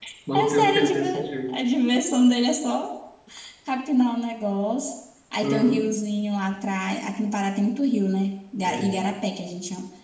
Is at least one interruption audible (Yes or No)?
Yes